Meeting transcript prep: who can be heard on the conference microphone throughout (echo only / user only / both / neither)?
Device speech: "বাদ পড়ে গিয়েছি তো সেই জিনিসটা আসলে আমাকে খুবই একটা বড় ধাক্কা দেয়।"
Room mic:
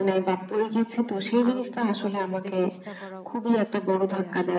both